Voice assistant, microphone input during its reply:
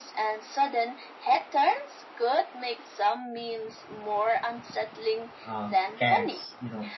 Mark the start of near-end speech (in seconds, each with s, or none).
5.4 s